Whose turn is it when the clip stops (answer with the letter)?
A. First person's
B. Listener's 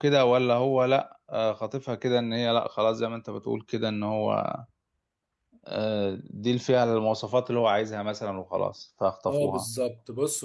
B